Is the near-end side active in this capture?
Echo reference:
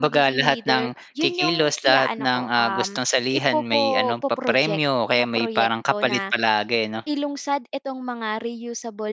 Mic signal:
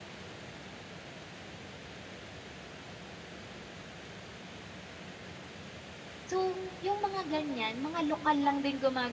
Yes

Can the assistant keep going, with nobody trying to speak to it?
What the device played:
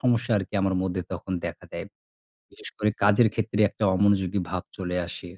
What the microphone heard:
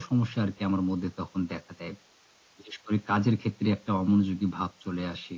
Yes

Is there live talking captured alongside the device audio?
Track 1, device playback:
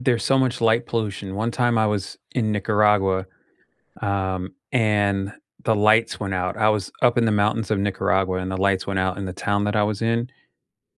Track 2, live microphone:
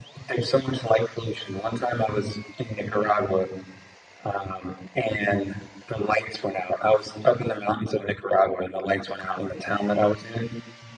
No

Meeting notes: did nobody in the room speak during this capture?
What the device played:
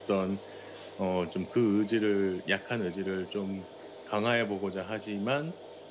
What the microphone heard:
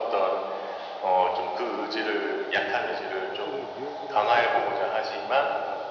No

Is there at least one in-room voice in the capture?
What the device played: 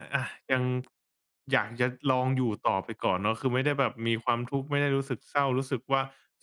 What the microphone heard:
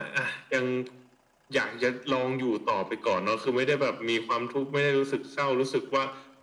No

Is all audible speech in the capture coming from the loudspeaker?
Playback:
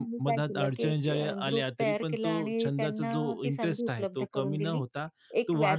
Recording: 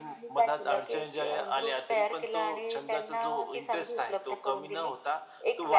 Yes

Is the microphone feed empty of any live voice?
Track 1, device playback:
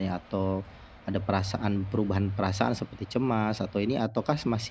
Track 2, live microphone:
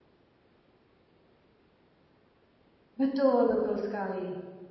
No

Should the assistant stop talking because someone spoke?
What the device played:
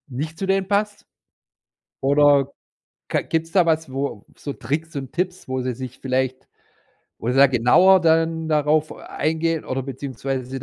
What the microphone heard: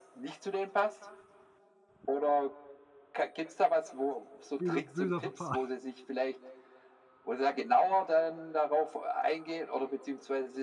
Yes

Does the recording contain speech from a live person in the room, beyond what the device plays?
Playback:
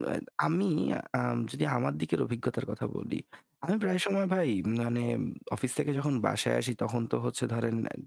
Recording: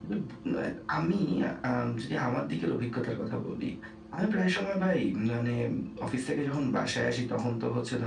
No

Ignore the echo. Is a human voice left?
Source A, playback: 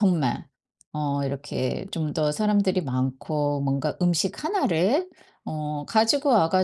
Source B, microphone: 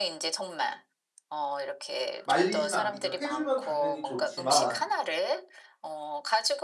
Yes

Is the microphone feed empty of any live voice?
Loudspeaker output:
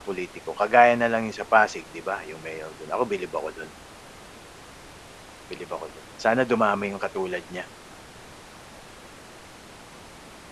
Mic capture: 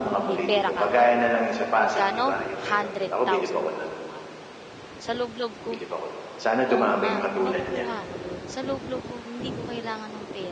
No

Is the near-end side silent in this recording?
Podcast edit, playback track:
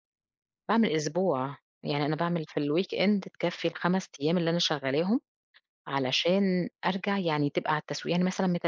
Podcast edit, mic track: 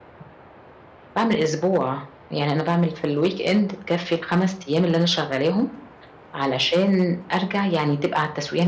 Yes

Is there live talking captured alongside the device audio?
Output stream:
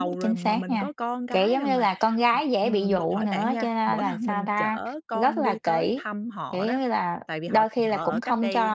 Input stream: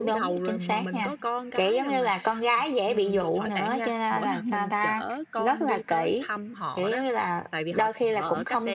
No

